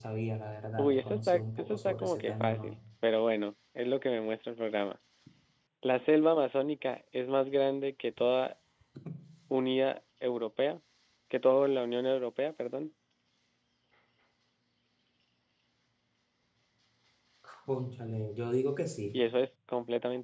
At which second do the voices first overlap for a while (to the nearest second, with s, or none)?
1 s